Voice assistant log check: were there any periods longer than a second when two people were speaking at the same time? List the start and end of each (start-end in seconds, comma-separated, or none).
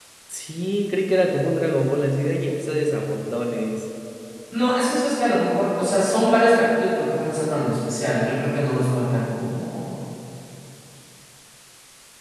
none